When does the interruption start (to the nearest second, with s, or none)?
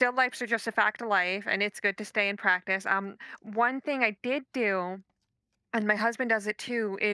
none